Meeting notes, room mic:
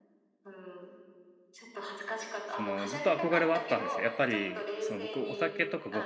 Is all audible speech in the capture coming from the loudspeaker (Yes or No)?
No